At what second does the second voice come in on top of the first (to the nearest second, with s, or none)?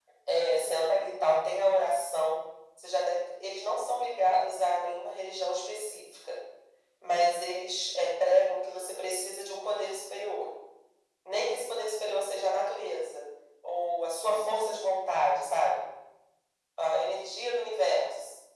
none